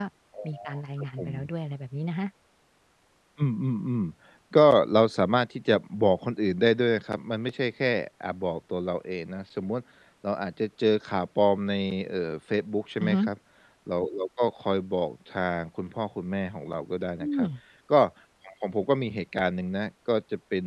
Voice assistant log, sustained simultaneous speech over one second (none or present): none